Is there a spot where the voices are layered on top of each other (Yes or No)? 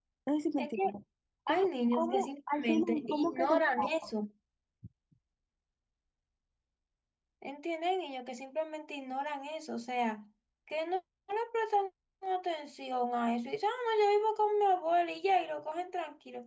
Yes